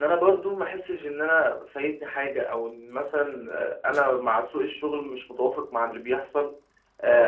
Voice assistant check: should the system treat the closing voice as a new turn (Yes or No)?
No